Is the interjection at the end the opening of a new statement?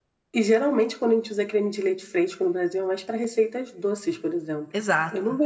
No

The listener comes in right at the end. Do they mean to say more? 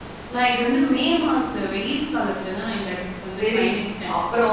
Yes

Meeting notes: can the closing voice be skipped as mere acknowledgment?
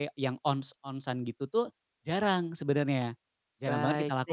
No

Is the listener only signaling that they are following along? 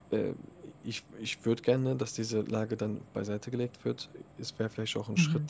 Yes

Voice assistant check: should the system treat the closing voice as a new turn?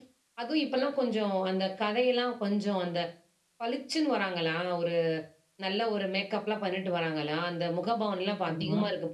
No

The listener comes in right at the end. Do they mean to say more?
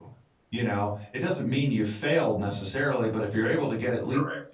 No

